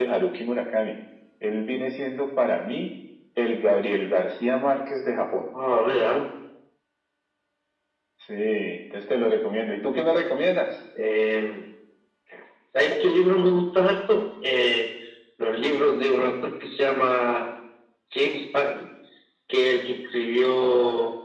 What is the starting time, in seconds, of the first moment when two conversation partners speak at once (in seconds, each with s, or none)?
none